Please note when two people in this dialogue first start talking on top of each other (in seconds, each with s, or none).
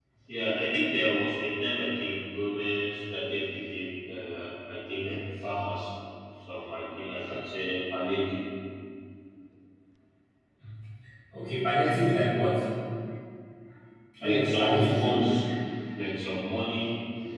14.2 s